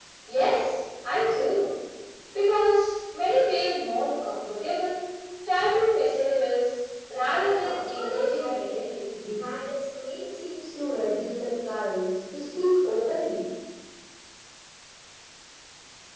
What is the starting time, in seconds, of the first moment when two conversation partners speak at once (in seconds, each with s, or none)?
7.4 s